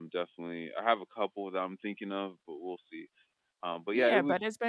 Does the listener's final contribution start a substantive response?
Yes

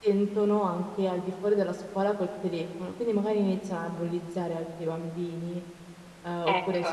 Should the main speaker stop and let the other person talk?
No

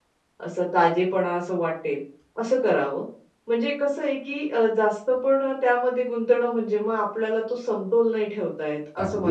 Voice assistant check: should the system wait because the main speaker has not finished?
No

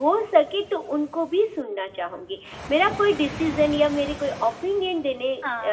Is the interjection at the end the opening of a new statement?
No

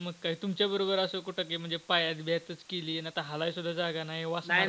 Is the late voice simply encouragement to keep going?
No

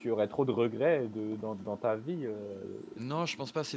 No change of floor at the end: No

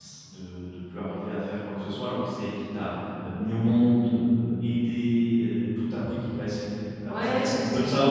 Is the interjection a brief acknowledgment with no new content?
No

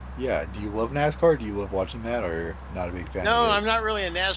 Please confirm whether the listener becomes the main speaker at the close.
Yes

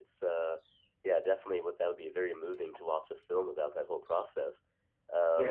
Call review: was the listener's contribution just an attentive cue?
No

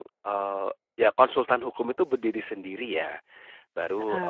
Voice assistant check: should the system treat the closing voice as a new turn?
No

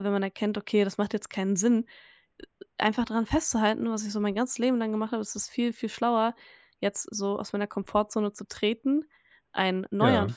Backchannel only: Yes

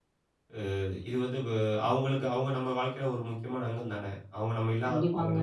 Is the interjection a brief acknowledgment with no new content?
No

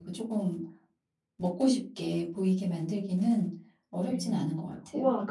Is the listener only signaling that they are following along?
No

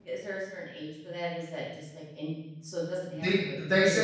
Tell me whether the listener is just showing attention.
No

